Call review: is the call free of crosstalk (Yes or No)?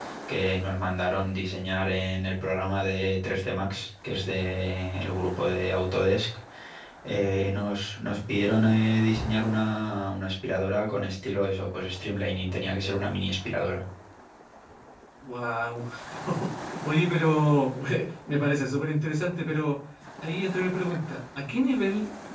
Yes